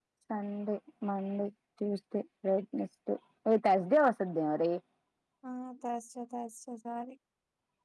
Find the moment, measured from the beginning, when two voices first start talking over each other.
none

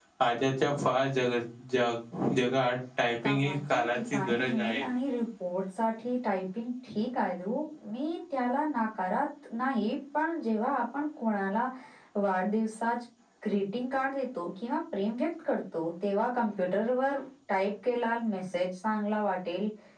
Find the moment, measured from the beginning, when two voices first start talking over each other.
3.2 s

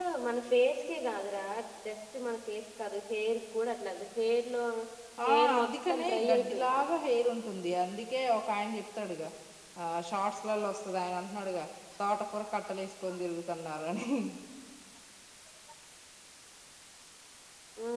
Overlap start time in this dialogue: 5.3 s

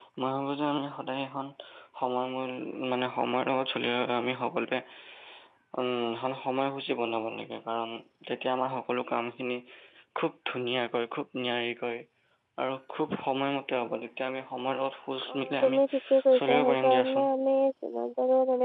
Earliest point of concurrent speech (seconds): 15.2 s

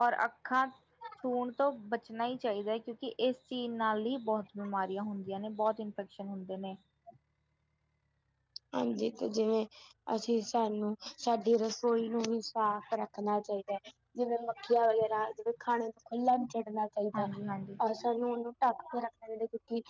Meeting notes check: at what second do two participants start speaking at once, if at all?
none

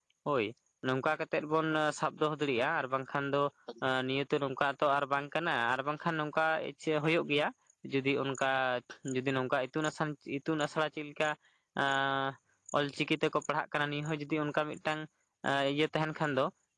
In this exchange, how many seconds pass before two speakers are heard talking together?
none

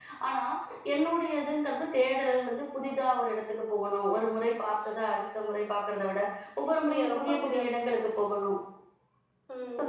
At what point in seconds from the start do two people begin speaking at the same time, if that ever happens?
6.8 s

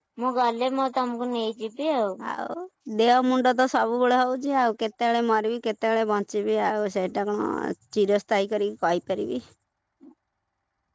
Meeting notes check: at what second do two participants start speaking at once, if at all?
none

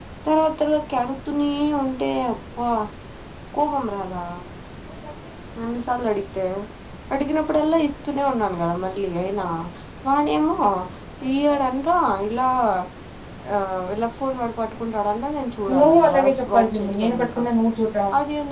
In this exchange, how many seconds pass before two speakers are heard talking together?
15.7 s

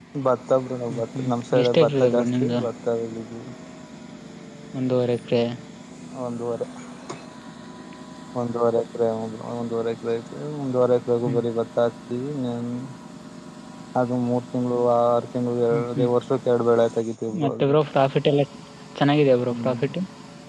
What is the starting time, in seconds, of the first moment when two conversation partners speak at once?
0.9 s

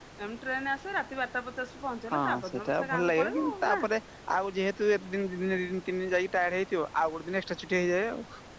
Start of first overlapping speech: 2.1 s

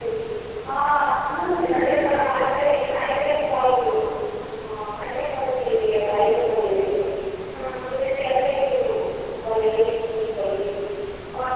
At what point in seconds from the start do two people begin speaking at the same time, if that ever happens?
1.6 s

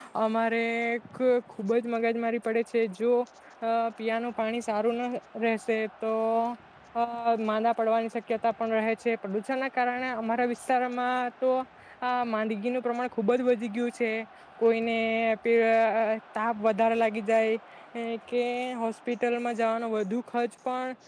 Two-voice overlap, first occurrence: none

